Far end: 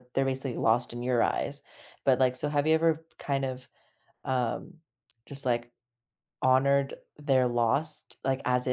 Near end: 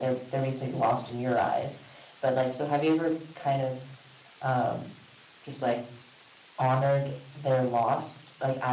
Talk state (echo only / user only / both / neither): echo only